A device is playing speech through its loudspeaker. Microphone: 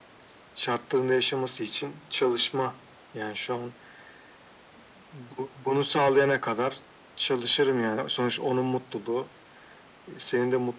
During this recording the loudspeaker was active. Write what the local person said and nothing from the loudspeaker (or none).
none